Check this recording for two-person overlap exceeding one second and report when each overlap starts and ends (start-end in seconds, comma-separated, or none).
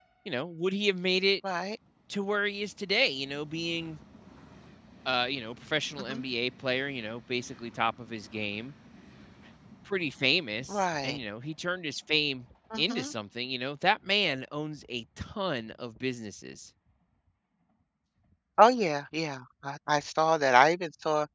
none